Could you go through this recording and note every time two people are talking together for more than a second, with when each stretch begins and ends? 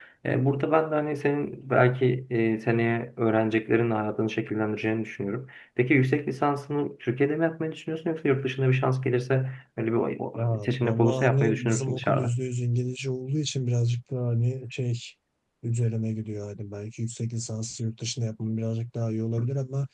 10.3-12.3

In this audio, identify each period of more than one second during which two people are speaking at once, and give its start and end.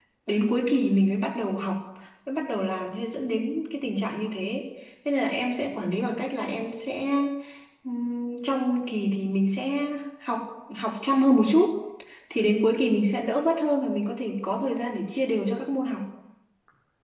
none

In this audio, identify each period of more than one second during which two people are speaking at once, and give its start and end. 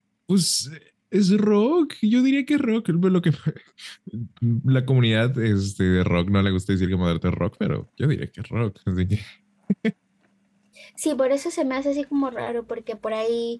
none

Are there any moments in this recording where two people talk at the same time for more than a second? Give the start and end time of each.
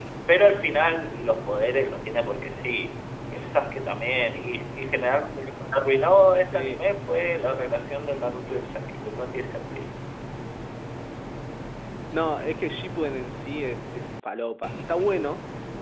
none

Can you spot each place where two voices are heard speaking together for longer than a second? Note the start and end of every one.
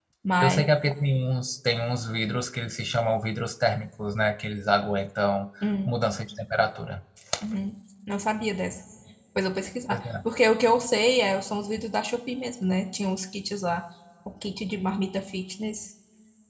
none

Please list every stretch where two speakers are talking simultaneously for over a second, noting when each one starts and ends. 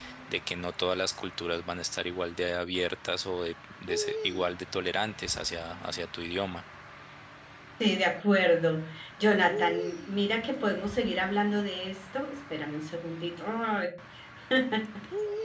none

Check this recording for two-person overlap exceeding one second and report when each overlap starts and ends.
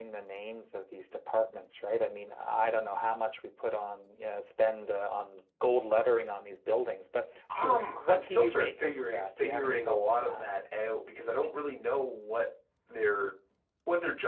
7.6-10.5

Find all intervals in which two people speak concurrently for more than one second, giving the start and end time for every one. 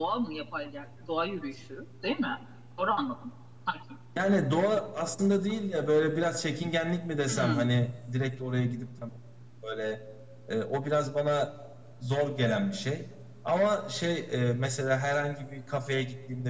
none

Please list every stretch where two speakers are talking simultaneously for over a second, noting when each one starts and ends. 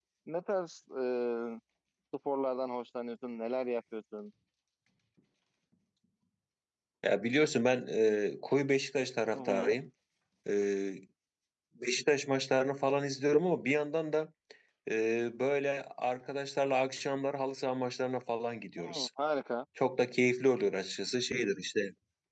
none

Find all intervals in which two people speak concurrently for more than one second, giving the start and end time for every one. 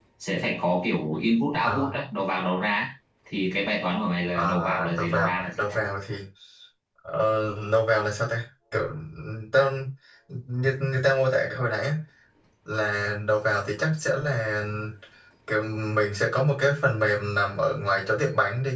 4.3-5.8

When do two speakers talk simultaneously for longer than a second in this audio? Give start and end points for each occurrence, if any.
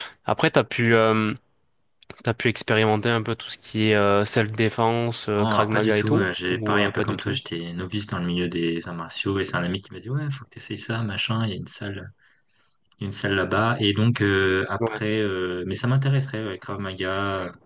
5.4-7.4

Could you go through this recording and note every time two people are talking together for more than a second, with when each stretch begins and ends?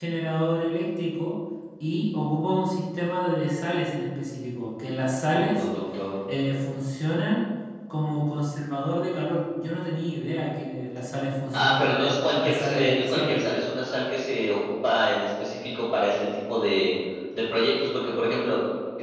11.6-13.4

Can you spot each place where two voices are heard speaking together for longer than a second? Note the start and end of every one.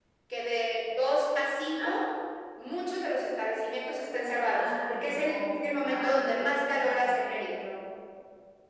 4.5-7.6

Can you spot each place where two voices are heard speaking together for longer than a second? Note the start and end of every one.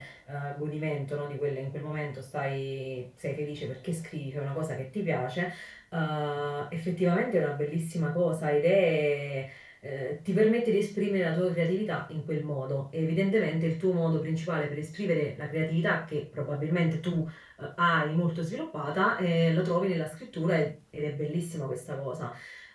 none

